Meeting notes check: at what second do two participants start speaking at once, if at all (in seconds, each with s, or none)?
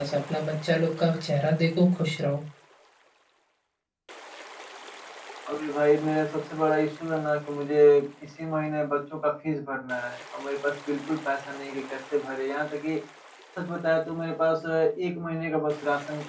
none